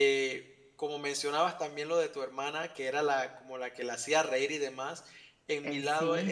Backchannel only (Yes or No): Yes